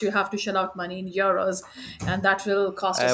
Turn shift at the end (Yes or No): Yes